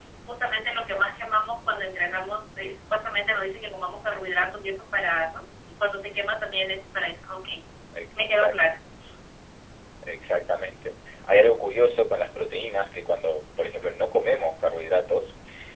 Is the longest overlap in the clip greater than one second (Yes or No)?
No